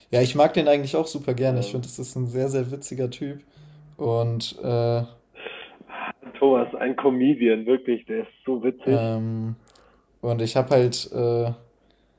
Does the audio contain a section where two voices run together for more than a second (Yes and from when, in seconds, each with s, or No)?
No